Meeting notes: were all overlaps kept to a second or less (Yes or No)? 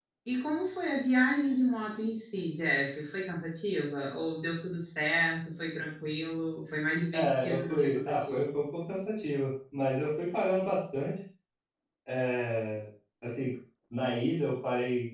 No